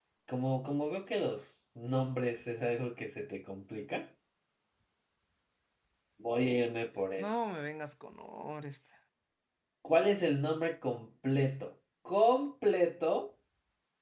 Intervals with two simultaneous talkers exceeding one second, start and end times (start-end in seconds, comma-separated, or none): none